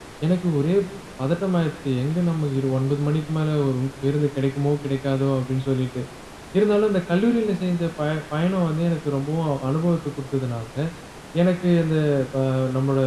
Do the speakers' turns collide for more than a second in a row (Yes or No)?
No